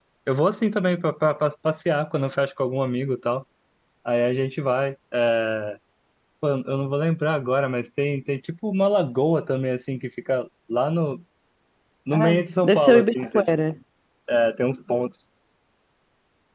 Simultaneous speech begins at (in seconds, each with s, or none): 12.1 s